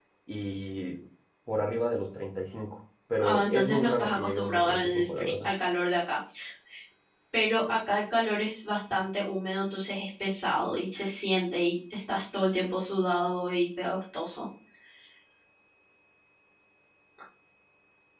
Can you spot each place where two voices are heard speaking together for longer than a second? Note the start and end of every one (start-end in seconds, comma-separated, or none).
3.2-5.5